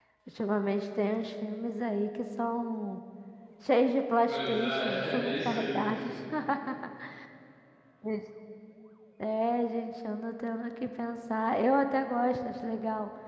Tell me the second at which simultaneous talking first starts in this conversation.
4.3 s

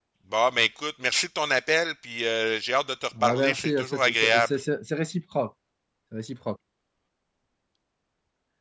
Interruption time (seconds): 3.1 s

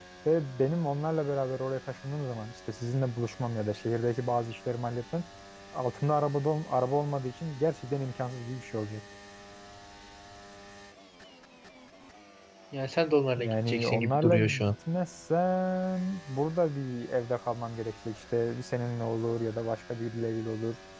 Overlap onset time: 13.4 s

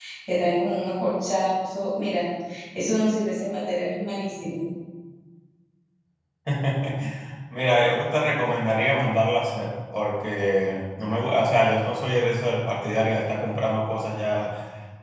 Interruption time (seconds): none

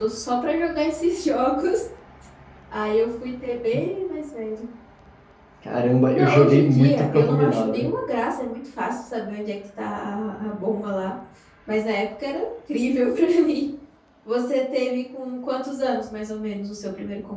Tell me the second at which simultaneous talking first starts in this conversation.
6.1 s

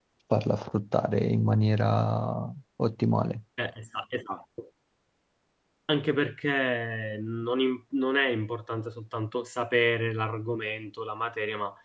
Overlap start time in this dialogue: none

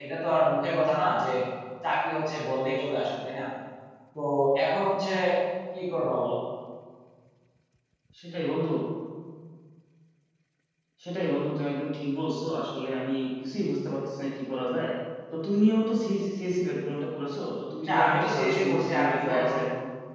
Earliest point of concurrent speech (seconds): 17.9 s

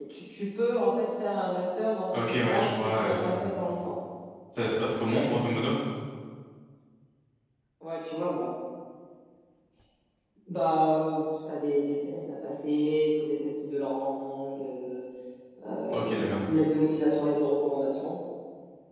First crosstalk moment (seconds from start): 2.1 s

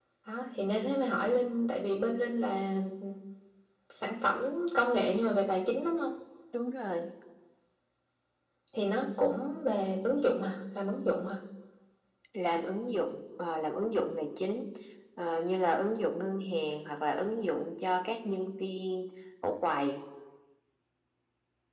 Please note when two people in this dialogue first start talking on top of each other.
none

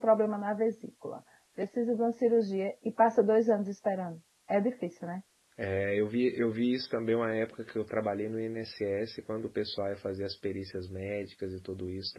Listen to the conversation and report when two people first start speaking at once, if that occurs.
none

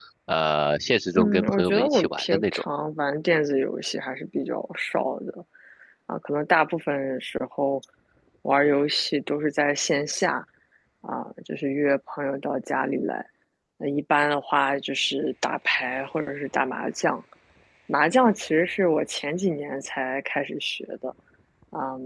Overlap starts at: 1.1 s

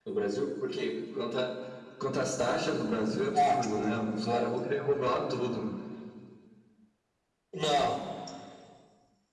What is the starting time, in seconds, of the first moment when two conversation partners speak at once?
3.3 s

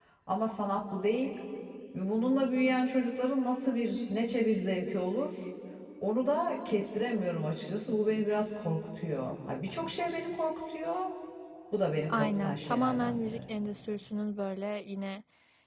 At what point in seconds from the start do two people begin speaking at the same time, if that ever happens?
12.1 s

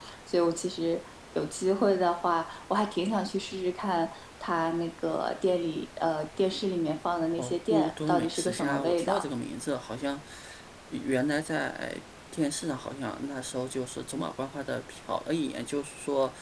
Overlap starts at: 7.4 s

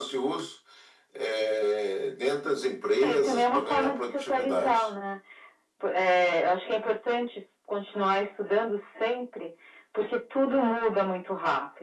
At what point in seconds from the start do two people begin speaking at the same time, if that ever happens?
3.0 s

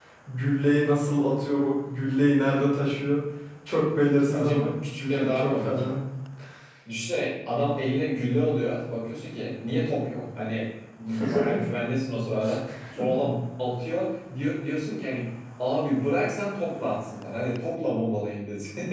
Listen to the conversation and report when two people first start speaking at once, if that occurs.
4.3 s

